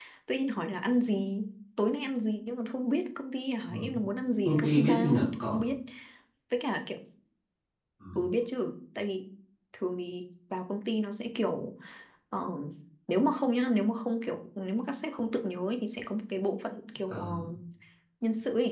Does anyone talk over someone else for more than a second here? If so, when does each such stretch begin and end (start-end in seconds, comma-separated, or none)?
4.5-5.7